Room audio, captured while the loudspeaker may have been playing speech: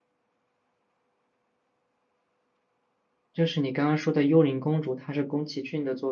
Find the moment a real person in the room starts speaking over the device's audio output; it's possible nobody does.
3.3 s

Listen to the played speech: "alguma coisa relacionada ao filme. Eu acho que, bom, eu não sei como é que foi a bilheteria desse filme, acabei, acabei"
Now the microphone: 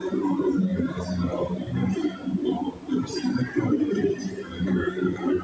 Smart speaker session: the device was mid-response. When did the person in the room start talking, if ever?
none

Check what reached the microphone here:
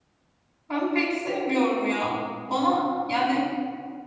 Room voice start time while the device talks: 0.7 s

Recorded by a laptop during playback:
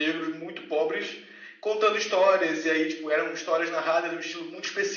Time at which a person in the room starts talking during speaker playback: none

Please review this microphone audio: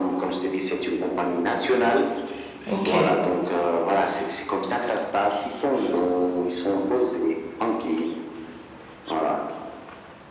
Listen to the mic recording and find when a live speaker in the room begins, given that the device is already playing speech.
2.6 s

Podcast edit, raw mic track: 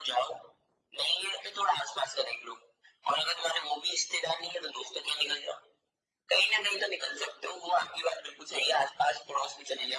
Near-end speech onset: none

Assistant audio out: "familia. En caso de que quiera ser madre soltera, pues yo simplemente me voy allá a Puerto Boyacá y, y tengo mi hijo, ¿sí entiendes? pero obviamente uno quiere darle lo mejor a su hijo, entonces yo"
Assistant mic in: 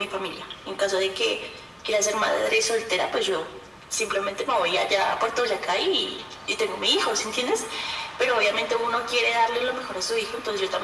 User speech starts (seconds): none

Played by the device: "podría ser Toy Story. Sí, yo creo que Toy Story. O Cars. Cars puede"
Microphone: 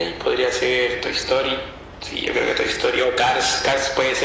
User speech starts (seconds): none

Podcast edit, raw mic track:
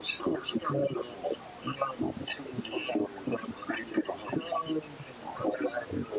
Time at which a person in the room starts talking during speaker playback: none

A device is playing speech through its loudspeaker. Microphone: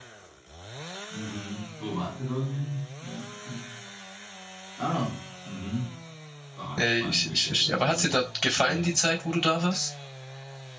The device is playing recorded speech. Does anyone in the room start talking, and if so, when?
6.8 s

